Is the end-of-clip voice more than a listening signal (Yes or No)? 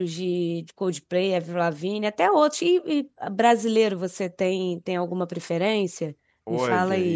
Yes